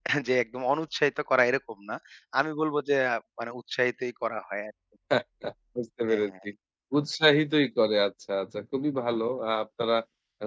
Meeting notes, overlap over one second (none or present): none